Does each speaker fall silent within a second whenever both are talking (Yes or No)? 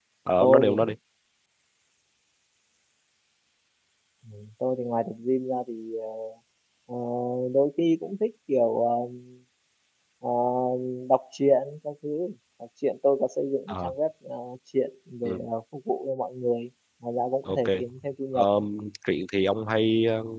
Yes